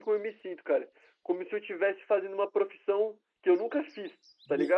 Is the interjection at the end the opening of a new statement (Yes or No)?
Yes